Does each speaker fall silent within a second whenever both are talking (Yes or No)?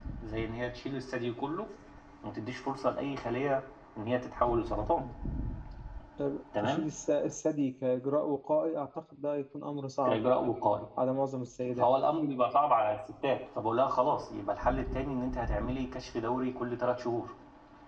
Yes